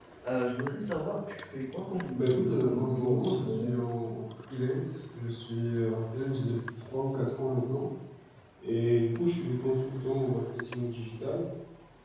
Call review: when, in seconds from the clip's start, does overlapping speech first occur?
2 s

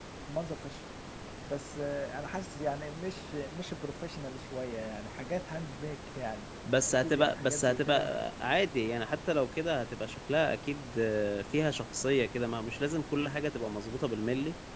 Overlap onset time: 7 s

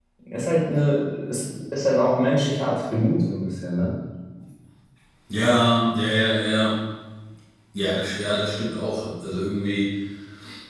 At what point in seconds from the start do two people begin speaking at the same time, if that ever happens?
none

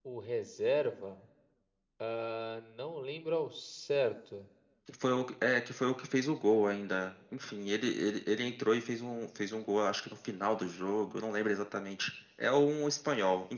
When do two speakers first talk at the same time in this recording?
none

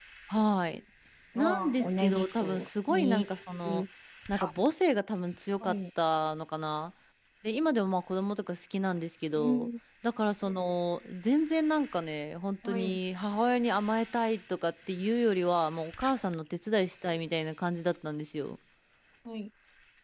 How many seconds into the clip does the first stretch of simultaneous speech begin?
1 s

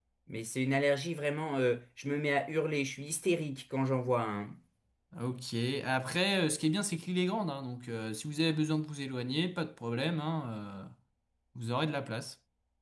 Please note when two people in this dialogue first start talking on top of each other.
none

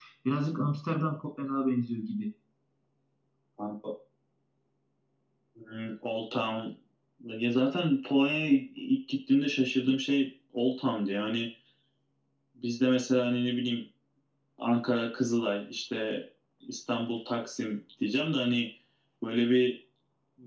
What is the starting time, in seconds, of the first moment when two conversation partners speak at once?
none

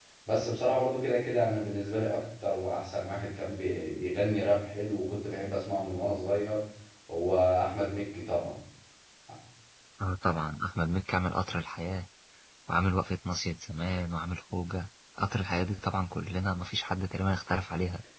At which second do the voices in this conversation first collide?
none

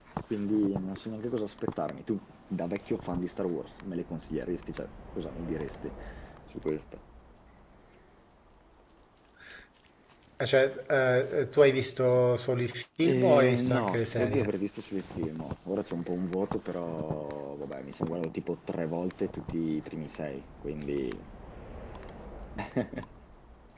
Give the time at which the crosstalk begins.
13 s

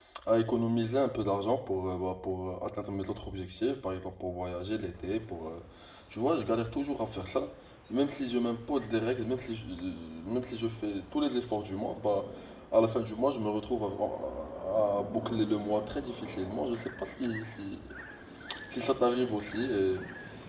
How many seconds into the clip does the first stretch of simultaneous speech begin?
none

